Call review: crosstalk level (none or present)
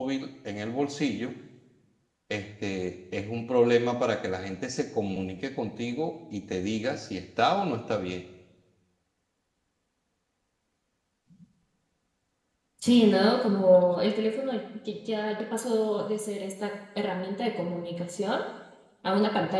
none